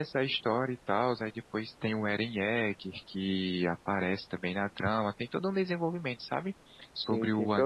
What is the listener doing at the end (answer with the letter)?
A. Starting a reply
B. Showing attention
A